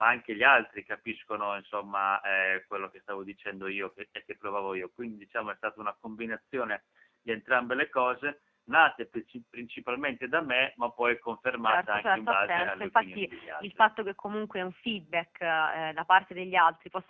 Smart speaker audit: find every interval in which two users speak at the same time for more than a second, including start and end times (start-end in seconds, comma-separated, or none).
11.7-13.9